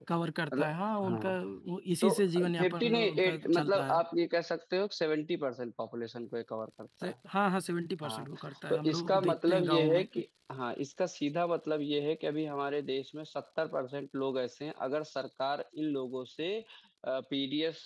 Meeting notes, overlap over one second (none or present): present